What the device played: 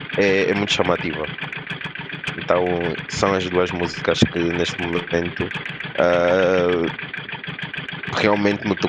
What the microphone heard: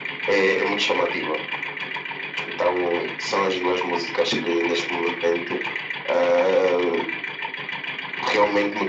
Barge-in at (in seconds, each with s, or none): none